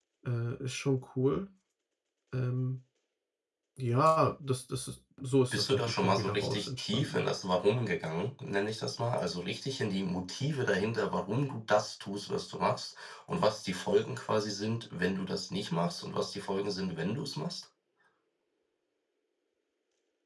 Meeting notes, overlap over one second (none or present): present